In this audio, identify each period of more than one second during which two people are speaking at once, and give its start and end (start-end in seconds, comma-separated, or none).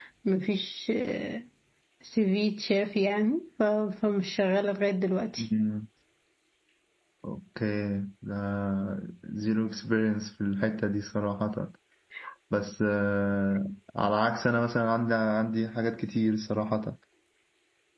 none